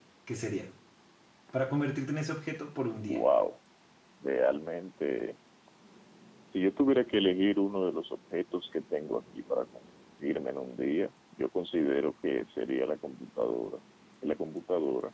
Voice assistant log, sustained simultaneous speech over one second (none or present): none